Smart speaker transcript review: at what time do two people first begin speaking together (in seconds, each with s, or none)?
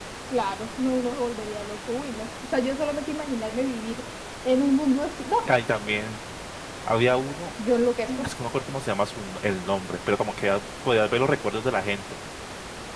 none